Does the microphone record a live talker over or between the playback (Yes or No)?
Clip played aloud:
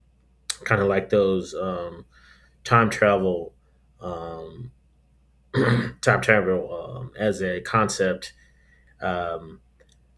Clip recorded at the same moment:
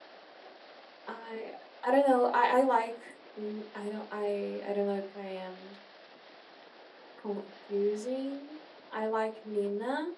Yes